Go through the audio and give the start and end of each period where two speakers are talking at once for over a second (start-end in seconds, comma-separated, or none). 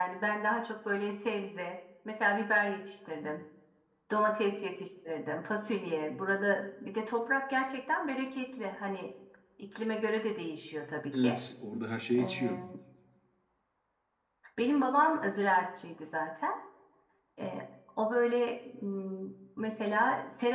none